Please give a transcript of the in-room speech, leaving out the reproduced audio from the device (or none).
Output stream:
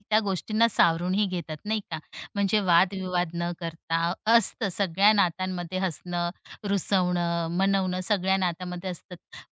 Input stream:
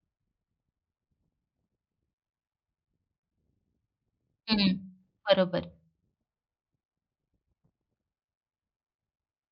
हं, बरोबर.